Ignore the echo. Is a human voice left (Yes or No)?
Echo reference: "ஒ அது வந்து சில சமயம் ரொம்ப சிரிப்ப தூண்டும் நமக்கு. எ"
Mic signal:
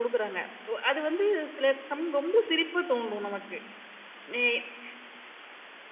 No